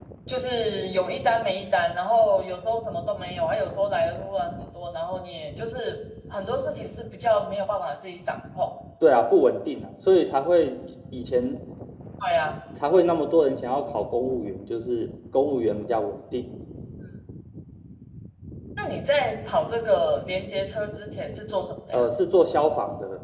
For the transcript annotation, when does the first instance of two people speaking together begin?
none

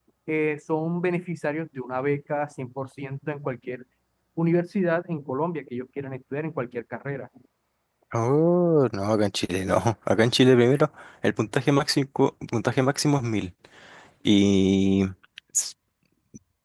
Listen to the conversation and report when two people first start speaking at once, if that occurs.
none

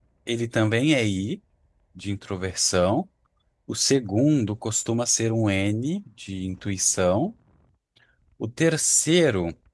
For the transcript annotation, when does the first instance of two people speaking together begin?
none

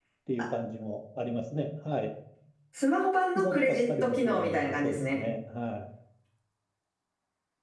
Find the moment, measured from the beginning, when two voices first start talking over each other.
3.4 s

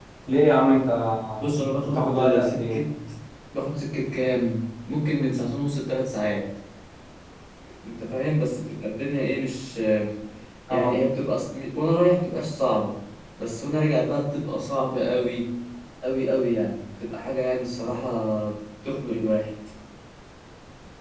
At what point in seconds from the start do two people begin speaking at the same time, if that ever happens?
1.6 s

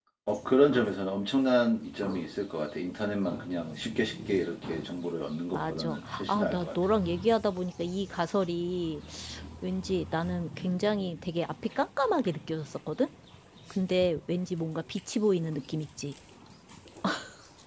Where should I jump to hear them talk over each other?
5.5 s

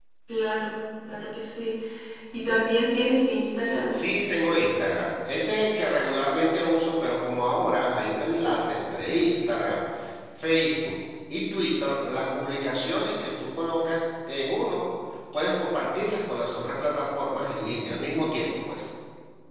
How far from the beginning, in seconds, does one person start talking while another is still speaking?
none

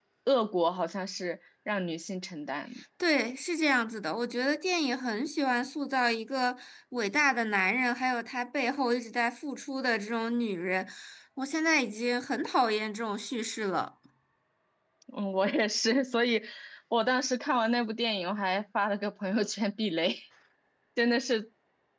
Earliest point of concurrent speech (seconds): none

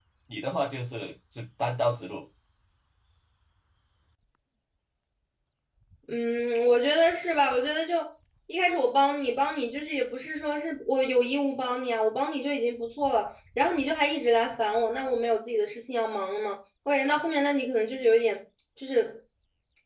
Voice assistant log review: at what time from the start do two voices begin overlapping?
none

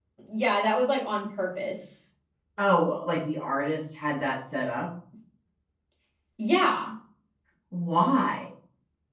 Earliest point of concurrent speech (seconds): none

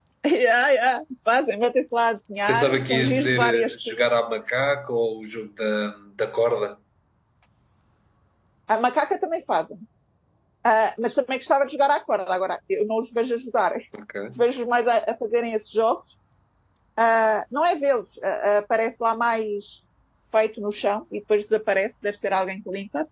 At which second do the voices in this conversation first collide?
2.5 s

